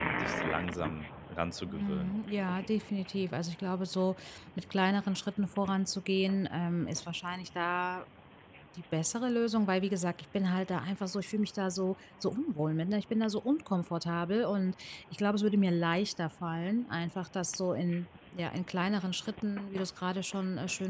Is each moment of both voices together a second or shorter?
Yes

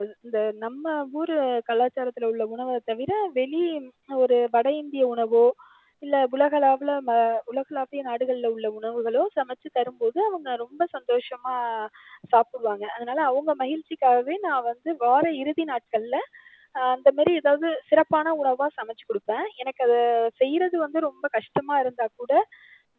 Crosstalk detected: No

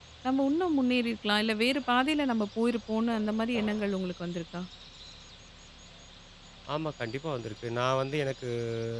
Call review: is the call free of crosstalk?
Yes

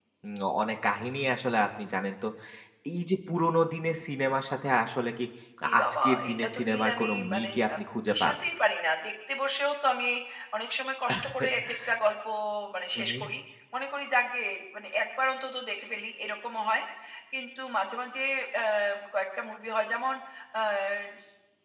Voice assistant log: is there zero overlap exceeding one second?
No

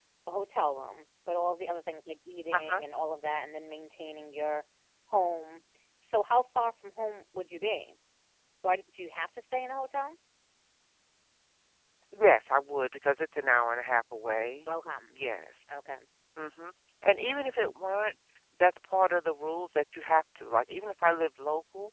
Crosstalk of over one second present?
No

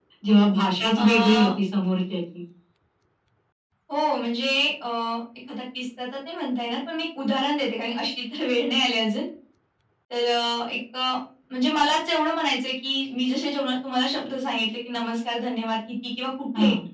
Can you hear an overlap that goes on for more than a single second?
No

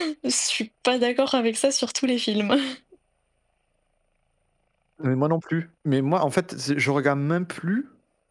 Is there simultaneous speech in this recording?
No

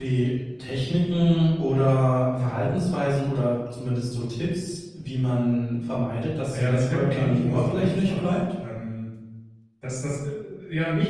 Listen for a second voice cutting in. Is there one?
Yes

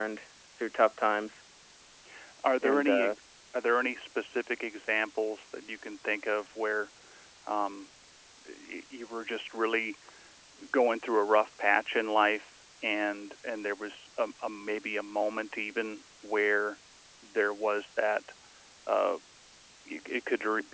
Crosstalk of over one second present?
No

